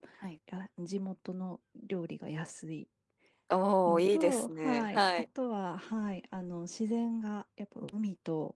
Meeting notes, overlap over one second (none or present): present